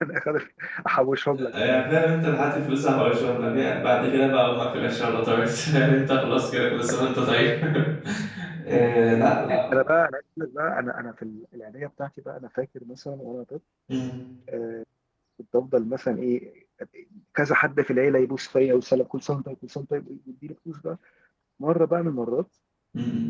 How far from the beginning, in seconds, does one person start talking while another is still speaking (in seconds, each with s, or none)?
none